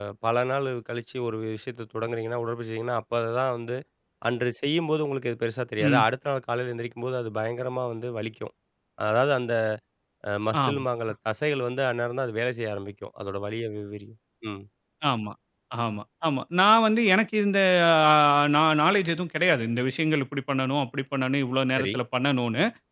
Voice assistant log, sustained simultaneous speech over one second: none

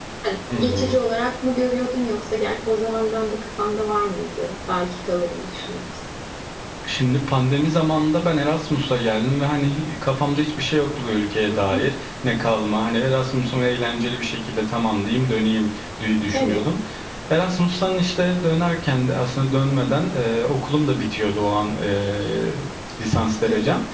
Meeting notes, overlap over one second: none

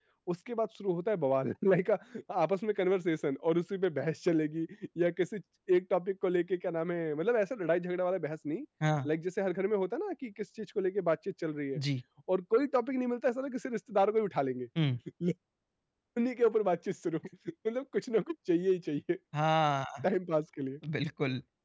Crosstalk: none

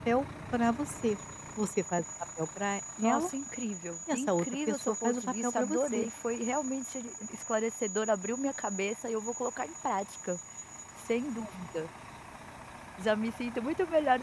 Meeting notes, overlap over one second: present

